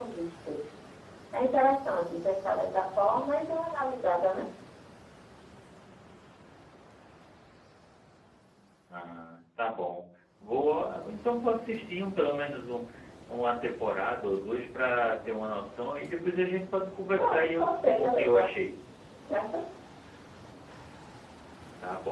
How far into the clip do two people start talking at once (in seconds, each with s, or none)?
17.2 s